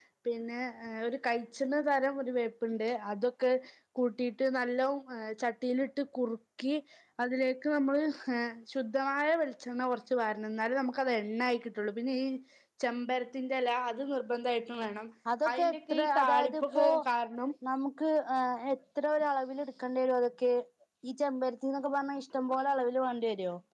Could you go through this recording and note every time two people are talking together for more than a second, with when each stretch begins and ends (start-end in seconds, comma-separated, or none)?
15.5-16.9